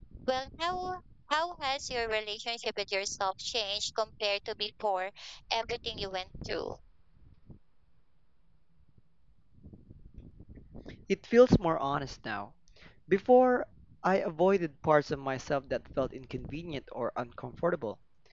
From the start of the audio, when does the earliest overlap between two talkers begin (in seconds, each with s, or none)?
none